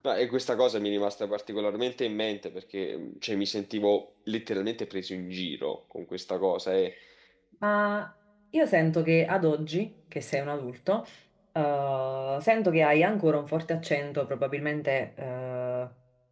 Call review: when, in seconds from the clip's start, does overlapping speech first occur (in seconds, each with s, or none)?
none